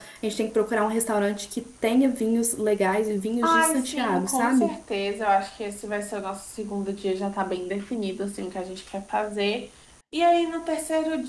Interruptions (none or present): present